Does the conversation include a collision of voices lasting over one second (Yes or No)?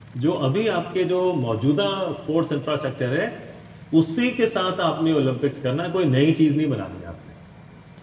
No